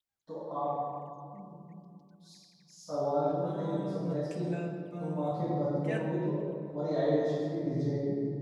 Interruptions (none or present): present